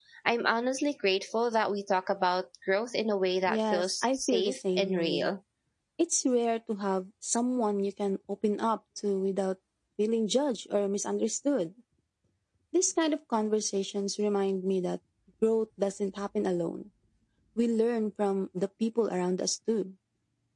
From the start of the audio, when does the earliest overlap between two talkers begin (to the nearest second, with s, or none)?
3 s